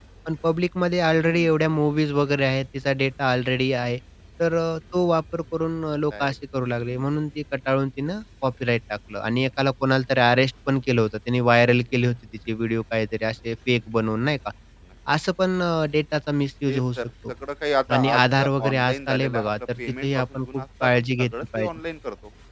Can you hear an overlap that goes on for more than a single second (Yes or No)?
Yes